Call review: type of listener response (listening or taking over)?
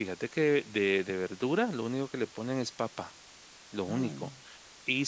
listening